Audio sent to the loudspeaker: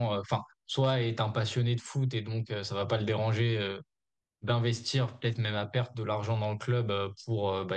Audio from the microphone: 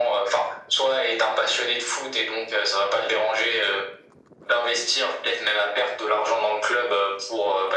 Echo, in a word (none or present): present